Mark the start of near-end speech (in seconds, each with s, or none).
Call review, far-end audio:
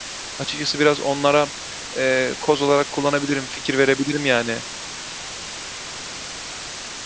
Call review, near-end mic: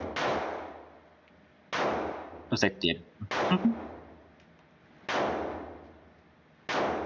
2.5 s